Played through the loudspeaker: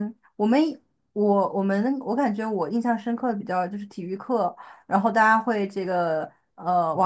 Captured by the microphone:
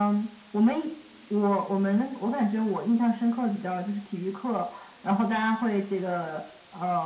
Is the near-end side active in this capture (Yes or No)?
No